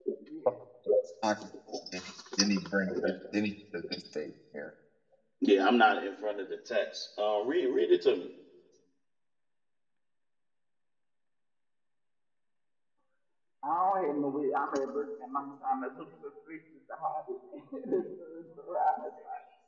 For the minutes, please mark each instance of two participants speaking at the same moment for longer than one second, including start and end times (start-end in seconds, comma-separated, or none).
none